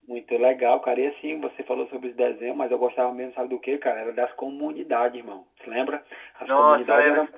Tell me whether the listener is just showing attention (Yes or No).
No